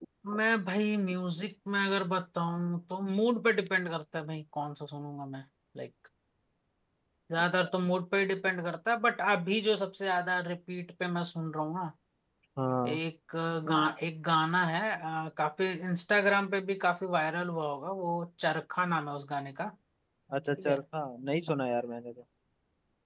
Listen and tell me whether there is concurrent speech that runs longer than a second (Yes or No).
No